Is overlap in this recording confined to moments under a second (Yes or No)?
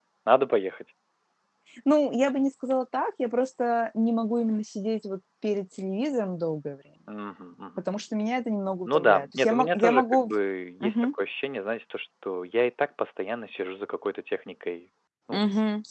No